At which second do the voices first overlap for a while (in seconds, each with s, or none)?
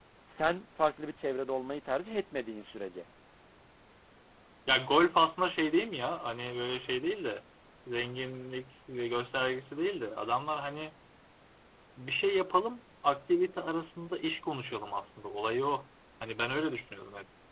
none